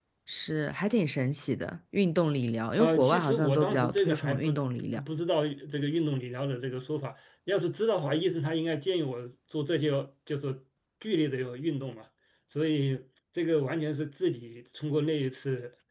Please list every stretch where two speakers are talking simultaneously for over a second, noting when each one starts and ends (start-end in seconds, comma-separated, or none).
2.8-4.5